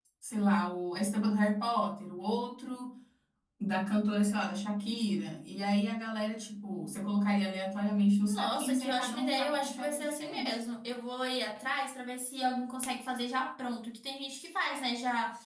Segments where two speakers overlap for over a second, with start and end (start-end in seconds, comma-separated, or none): 8.3-10.6